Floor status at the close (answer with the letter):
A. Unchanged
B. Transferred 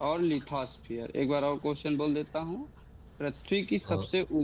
A